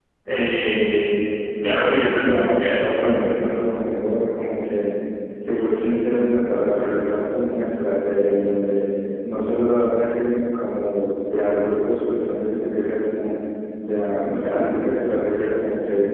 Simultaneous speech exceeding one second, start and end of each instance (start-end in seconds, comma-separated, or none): 1.6-3.3